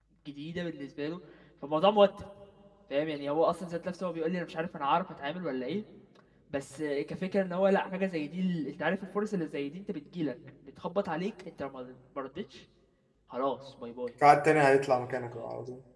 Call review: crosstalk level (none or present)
none